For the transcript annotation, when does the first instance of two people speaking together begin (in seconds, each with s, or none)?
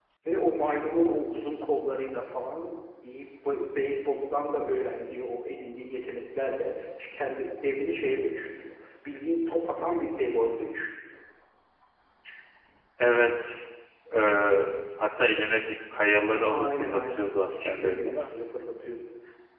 16.4 s